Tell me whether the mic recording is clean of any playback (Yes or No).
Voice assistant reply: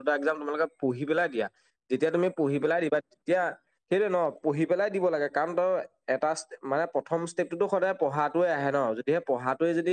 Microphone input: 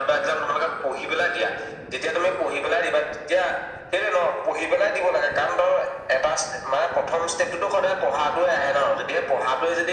No